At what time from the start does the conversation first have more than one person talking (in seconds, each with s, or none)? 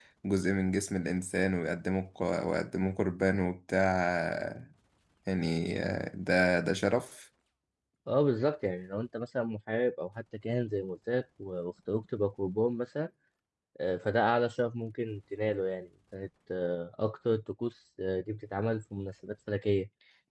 none